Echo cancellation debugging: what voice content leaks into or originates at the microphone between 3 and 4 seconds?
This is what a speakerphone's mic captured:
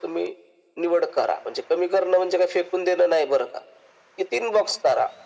echo only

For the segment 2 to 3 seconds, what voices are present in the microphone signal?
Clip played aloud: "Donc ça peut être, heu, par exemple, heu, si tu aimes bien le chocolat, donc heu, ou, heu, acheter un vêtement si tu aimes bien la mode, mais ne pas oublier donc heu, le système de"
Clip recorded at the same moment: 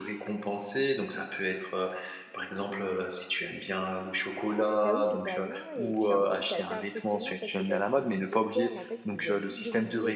echo only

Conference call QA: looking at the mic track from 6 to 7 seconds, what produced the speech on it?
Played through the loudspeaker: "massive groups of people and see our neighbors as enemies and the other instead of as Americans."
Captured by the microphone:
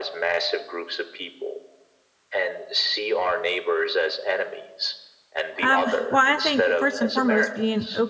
both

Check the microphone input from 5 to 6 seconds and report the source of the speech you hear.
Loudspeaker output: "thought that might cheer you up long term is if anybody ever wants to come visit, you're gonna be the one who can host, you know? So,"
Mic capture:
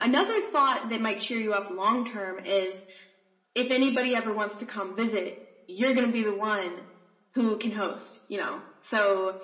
echo only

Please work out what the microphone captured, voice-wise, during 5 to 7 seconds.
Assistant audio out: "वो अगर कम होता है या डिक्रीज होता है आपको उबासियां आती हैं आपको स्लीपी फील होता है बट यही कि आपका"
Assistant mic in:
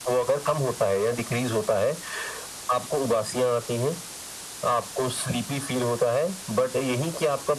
echo only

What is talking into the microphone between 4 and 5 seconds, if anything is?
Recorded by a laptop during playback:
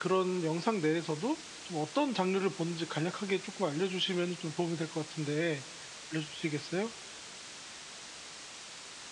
user only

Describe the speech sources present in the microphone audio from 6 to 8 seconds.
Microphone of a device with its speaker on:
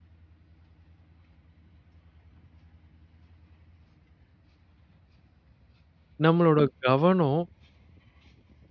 user only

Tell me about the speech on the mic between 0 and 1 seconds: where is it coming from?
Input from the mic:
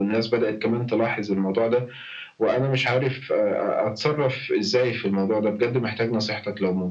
echo only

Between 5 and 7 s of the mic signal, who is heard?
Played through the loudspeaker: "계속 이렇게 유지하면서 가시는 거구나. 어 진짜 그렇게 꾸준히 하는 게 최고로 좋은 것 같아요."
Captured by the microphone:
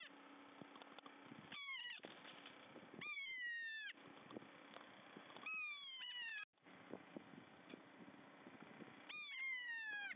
neither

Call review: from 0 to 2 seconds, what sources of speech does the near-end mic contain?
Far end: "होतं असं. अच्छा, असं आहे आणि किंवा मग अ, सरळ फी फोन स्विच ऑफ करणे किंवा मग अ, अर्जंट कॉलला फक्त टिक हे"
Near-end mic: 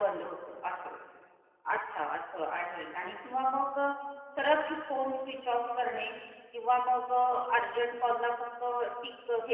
echo only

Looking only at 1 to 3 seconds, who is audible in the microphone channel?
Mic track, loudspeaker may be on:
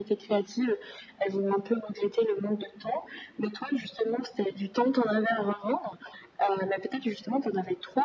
echo only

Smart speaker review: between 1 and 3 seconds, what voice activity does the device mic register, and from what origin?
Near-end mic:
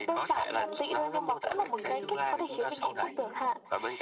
both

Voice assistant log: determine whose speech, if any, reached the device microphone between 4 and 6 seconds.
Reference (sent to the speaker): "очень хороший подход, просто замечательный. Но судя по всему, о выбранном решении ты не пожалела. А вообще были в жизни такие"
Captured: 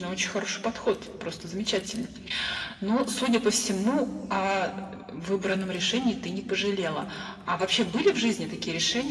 echo only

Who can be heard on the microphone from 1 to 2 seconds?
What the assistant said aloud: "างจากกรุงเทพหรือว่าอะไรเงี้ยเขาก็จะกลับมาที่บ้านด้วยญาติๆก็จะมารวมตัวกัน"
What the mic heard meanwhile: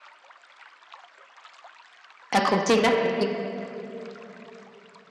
neither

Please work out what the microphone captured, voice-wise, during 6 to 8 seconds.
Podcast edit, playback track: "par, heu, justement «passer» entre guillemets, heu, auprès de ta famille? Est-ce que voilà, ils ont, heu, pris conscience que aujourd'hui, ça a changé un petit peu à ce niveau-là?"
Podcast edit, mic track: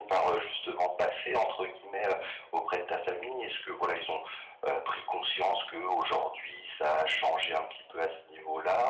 echo only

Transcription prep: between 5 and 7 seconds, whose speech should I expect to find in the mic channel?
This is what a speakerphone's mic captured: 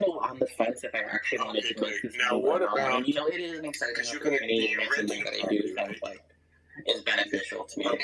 echo only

